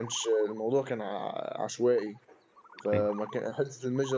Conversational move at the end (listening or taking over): listening